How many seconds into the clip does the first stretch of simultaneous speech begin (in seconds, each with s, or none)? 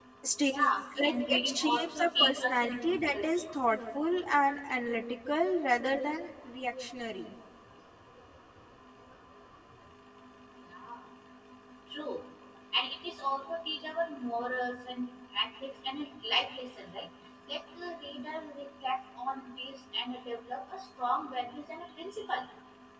1.0 s